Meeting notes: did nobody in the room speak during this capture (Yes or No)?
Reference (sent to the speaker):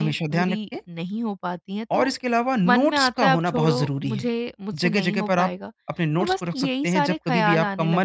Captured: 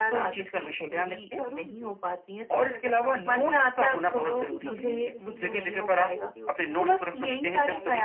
No